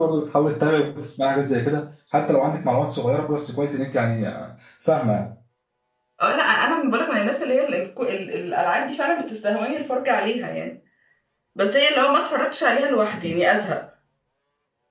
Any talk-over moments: No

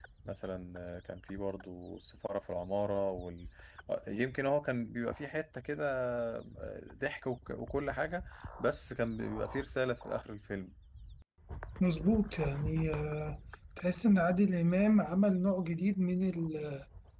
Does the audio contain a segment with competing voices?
No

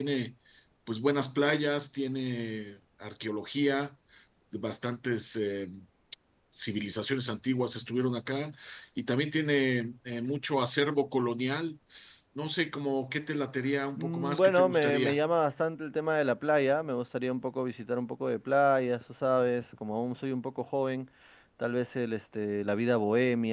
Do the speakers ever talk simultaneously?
Yes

